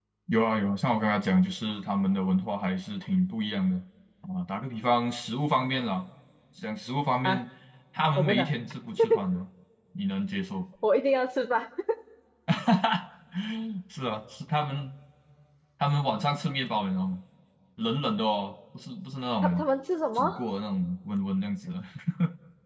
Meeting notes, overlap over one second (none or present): none